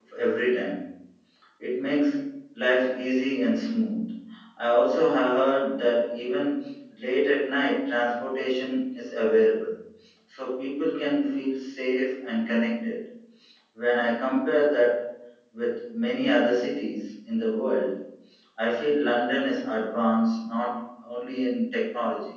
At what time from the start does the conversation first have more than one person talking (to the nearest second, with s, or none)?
none